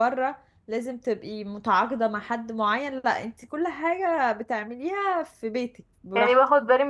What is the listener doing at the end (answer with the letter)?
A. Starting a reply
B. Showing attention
A